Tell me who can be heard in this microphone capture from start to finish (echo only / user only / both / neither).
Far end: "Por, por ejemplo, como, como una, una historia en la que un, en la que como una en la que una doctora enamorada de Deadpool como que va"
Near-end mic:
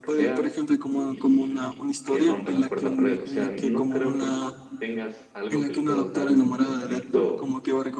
both